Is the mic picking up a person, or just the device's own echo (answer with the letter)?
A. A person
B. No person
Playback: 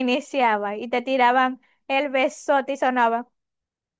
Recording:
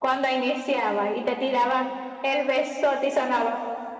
B